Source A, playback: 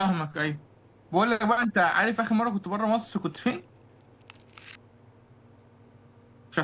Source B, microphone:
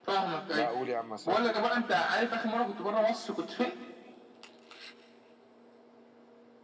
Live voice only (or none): لا أقول يا عم أصدق